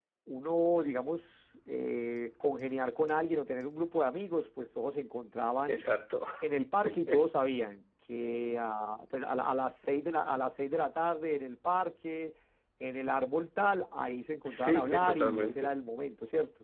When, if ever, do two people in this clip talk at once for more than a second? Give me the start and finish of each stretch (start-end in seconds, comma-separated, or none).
14.4-15.7